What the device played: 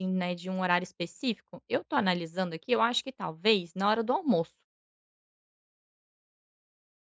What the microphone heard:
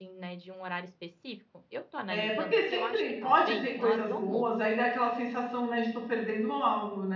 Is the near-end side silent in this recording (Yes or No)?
No